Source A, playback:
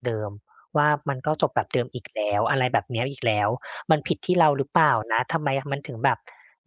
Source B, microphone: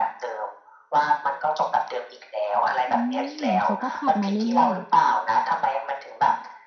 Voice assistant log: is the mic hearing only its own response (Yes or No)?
No